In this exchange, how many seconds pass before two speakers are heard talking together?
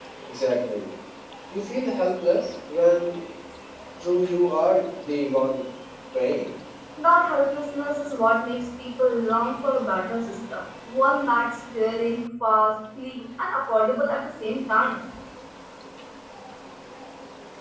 none

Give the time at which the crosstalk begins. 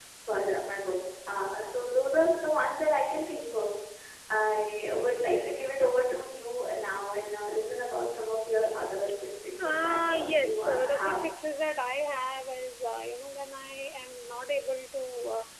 9.6 s

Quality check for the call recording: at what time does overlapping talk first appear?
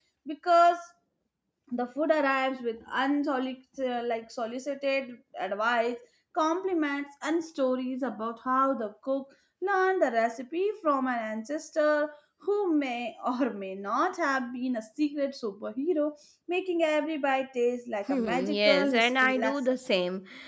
18.1 s

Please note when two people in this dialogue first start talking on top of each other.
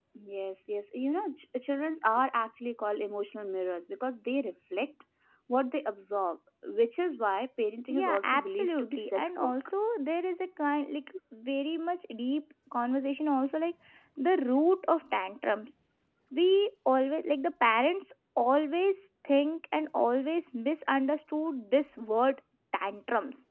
7.9 s

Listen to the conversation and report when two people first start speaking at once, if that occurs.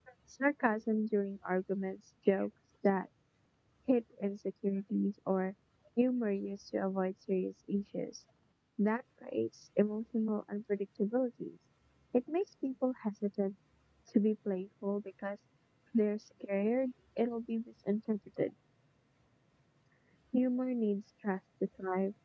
none

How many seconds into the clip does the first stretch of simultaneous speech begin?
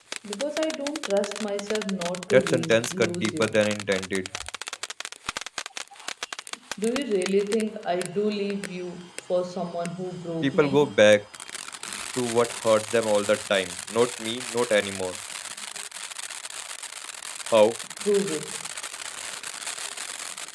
2.3 s

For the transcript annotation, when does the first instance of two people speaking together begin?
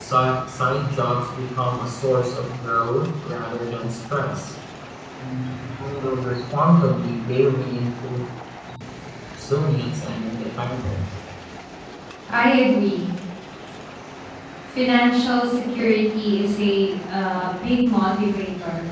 none

